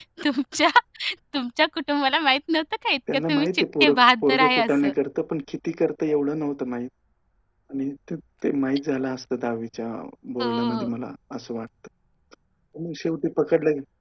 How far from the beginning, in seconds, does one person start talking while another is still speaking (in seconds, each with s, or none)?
3.1 s